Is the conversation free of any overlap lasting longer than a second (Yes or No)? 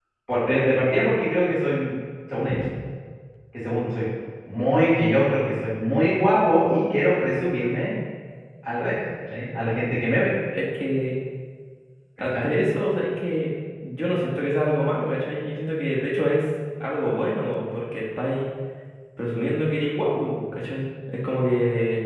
Yes